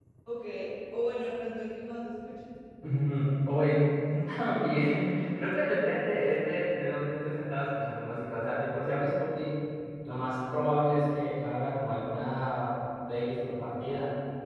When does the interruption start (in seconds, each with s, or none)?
none